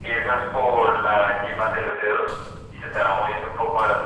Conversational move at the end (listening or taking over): listening